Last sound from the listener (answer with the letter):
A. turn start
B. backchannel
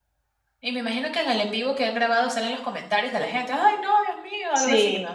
A